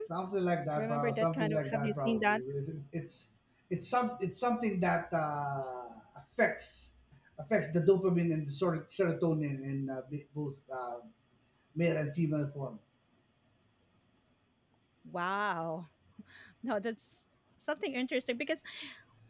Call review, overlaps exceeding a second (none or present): present